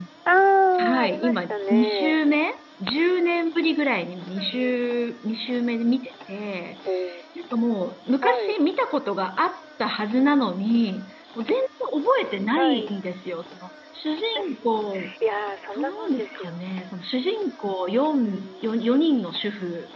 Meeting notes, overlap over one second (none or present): present